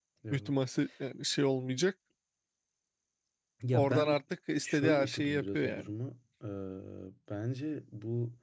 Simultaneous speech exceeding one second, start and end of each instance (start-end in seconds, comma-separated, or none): 4.6-5.9